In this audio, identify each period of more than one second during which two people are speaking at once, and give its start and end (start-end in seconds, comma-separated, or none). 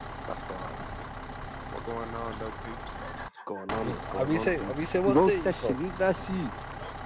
3.8-5.8